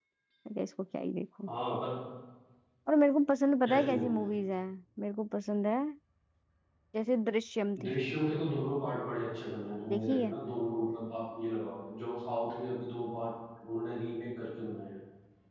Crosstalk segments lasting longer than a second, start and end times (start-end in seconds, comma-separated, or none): none